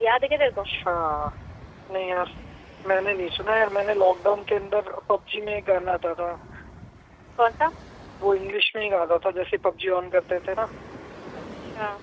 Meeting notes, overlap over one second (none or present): none